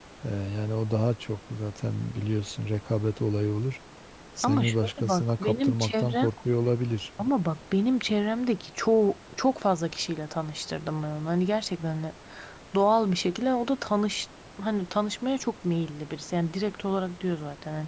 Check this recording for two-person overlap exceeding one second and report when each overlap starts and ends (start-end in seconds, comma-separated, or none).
4.4-6.3